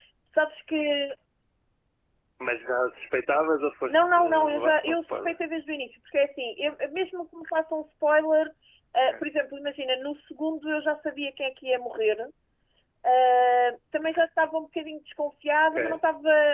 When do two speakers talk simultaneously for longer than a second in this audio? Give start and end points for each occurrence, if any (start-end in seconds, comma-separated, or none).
3.9-5.4